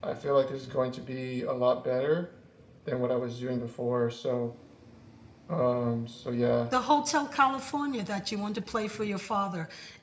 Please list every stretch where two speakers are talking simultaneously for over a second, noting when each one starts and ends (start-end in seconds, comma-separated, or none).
none